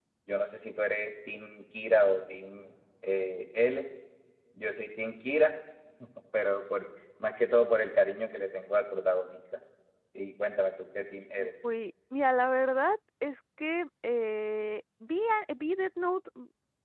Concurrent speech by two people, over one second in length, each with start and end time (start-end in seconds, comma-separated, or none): none